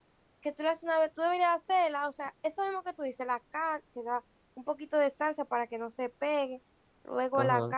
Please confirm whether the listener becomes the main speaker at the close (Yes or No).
Yes